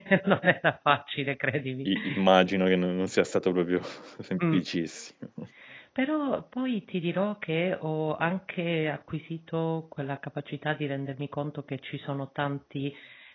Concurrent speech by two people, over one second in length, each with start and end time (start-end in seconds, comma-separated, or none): none